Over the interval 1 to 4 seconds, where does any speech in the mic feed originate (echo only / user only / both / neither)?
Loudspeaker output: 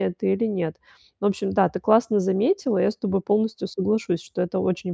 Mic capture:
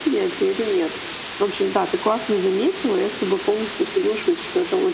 echo only